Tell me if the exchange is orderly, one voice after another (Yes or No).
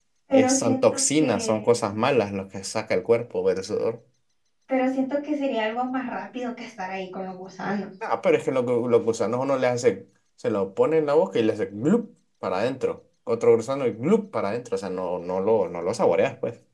No